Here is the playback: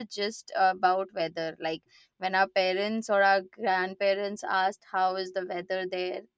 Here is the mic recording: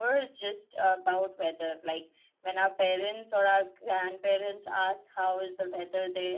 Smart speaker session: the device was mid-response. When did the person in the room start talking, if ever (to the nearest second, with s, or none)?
none